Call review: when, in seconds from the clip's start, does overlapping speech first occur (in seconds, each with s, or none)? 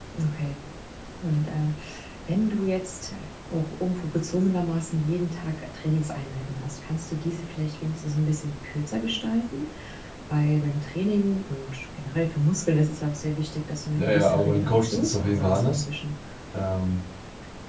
13.9 s